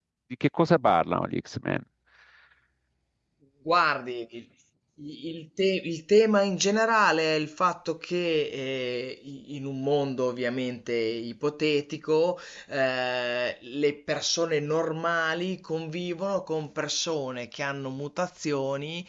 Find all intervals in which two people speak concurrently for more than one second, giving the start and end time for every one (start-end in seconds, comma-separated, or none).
none